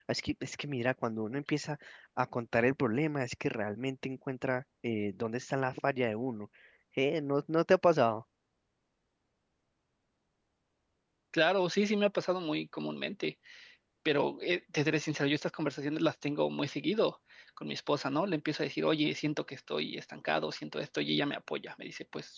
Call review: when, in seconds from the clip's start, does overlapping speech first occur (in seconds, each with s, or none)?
none